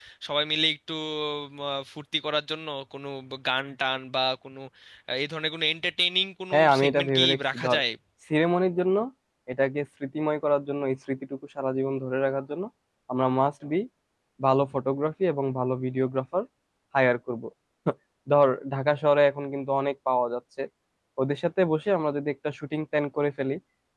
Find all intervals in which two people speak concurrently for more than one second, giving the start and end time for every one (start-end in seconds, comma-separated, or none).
6.5-7.8